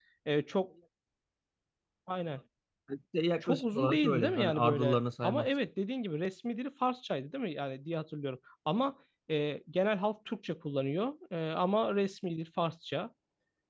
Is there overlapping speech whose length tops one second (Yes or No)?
Yes